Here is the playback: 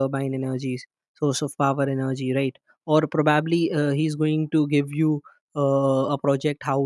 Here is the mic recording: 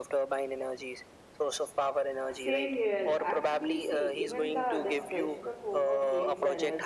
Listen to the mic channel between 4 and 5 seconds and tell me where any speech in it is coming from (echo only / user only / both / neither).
both